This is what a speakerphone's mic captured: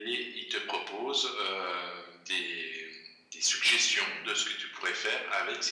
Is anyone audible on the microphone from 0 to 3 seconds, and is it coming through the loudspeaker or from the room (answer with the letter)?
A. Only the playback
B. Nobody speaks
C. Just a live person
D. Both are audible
A